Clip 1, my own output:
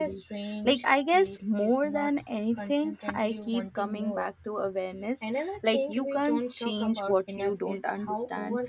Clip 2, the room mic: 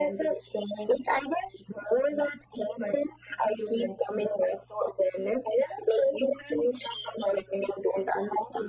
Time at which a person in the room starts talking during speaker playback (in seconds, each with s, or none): none